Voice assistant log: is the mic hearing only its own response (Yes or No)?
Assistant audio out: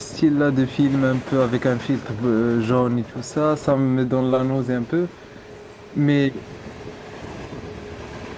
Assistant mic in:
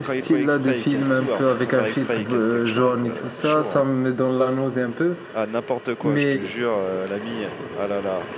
No